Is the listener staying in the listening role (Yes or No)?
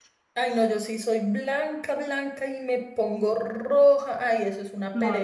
No